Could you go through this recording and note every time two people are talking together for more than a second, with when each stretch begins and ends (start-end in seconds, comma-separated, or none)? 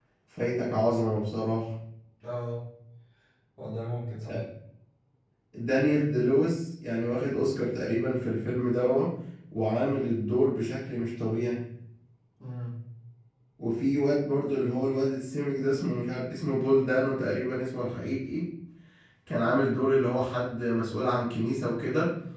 none